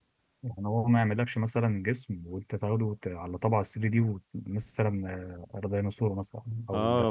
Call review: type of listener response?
taking over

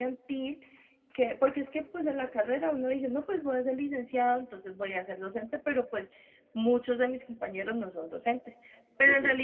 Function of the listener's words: listening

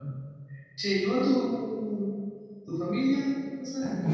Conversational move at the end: taking over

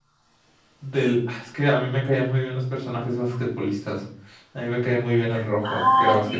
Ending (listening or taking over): taking over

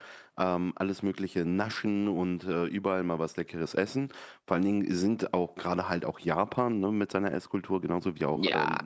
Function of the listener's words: listening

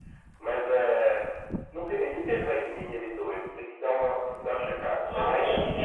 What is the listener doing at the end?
taking over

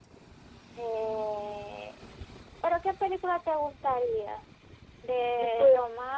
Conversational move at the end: listening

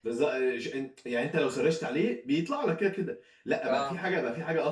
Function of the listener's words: listening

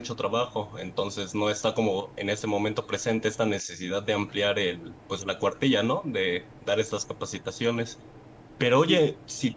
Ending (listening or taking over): listening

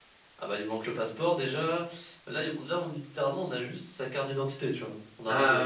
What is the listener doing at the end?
taking over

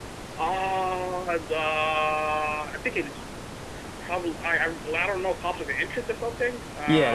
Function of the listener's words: taking over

